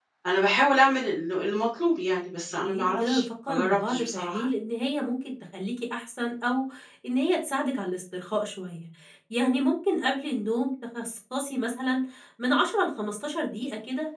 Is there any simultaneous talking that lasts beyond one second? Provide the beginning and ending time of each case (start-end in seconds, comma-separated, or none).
2.6-4.5